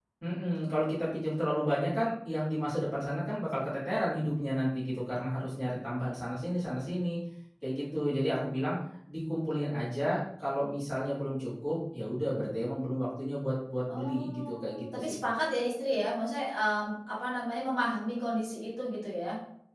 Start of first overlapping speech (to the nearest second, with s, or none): 14 s